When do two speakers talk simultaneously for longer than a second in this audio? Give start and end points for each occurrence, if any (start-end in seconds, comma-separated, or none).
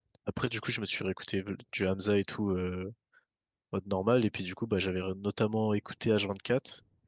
none